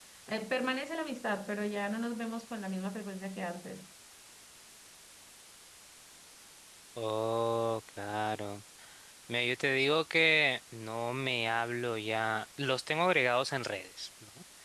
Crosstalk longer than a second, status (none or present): none